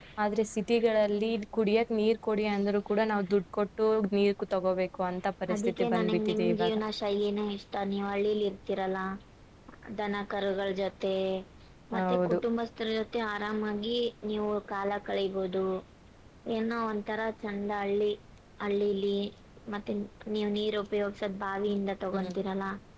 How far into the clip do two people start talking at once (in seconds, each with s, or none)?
5.5 s